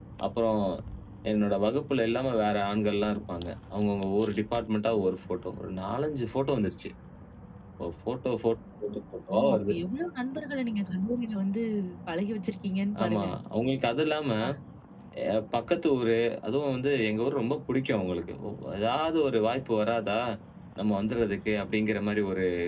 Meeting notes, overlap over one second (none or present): none